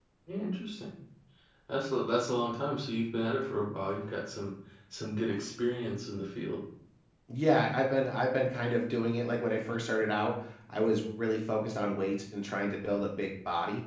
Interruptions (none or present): none